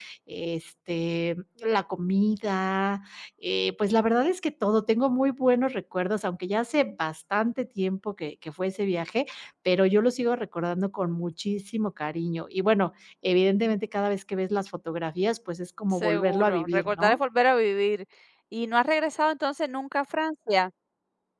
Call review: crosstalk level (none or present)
present